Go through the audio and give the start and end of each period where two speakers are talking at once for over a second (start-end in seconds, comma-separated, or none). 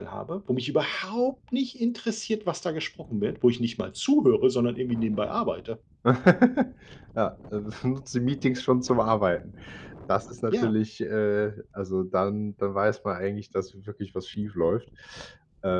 none